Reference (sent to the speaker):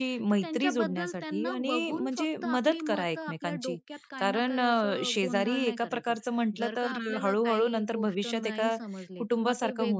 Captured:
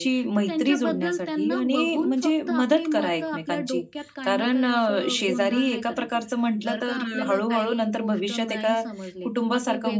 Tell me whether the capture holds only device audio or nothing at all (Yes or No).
Yes